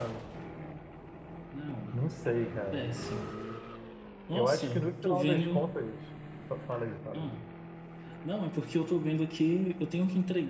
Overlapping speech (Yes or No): Yes